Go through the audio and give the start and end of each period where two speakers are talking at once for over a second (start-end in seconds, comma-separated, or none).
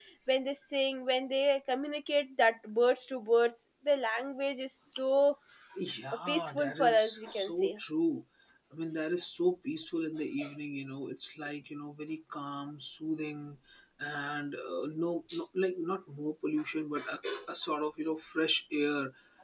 6.3-7.8